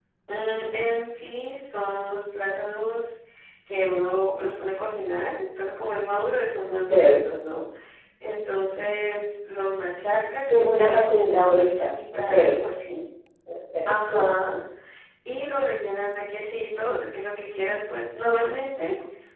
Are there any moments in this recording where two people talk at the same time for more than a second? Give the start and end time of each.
10.5-12.3

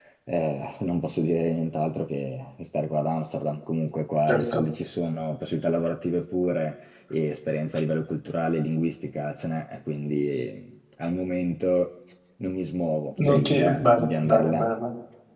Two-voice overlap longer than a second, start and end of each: 13.2-14.7

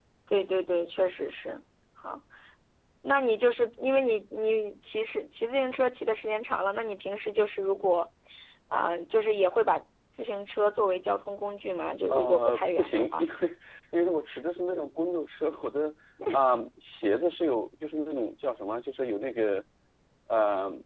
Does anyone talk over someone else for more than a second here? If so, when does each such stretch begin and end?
12.1-13.3

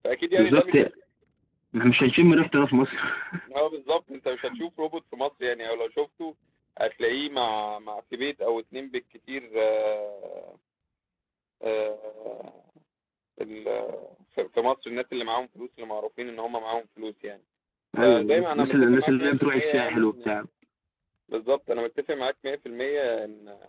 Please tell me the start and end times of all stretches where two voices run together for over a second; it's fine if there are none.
18.0-20.3

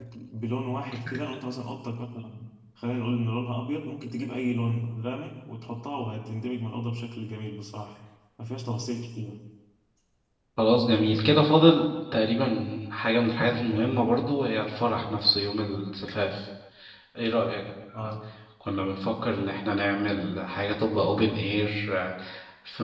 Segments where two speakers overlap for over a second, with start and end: none

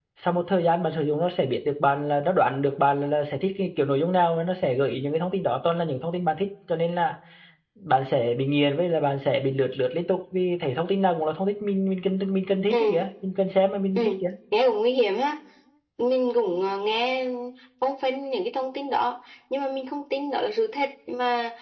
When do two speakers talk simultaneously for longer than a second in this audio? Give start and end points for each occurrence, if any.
none

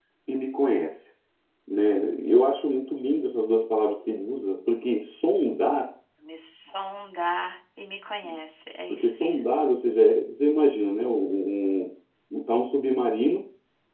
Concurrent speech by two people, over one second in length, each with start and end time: none

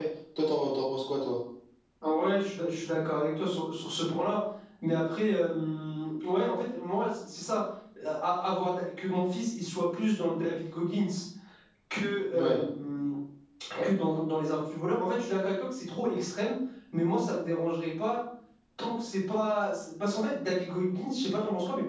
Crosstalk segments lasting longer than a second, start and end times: none

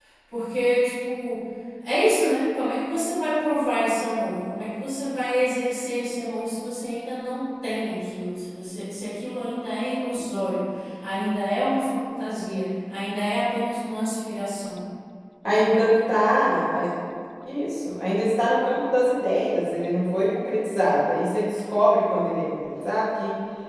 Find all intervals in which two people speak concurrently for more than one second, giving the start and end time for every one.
none

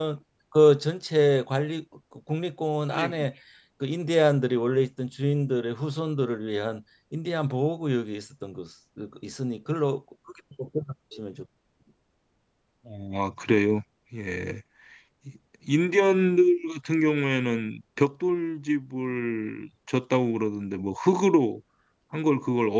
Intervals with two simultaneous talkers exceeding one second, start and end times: none

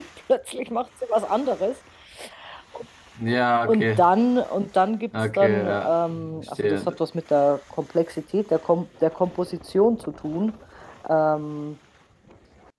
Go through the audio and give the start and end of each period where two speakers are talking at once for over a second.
5.4-6.9

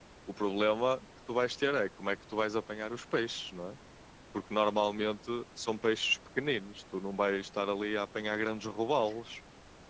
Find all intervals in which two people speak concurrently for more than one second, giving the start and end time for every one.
none

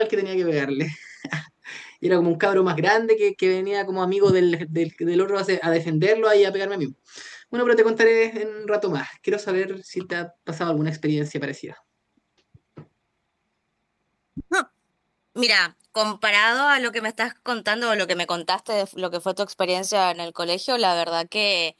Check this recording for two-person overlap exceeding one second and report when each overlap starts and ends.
none

